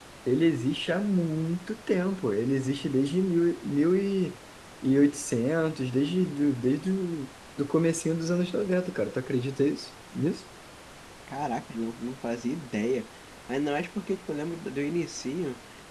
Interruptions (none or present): none